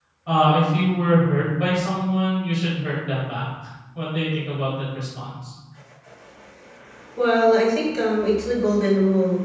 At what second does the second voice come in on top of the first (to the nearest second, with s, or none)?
none